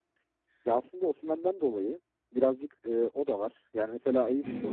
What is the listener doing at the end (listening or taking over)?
taking over